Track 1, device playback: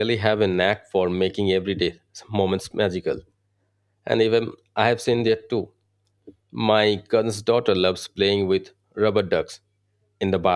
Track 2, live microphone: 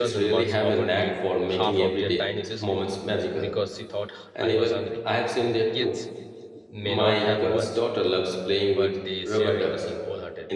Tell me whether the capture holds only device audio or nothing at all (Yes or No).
No